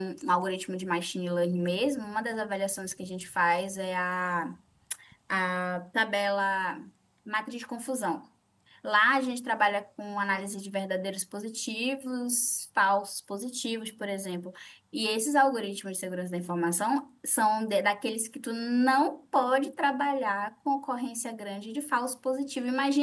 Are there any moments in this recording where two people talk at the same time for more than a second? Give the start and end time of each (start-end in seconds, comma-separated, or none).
none